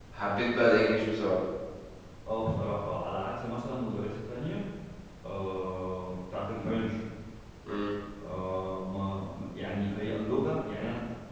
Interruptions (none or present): none